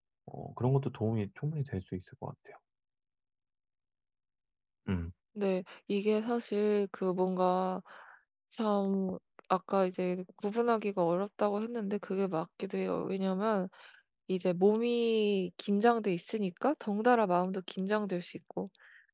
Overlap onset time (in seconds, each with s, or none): none